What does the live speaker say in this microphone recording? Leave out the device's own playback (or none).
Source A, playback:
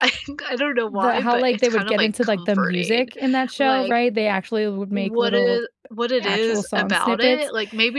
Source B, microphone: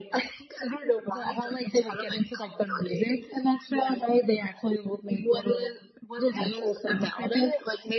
none